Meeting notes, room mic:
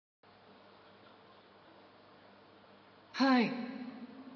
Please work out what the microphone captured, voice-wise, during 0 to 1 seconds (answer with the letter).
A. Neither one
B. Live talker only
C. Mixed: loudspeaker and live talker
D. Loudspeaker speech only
A